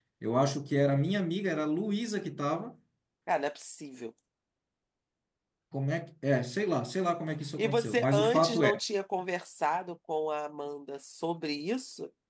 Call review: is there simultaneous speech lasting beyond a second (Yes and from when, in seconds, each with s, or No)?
Yes, from 7.6 s